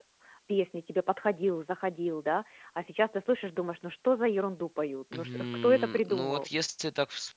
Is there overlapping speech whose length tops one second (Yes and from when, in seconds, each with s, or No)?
Yes, from 5.1 s